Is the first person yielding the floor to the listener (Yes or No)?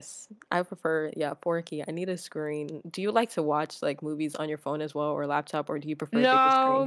Yes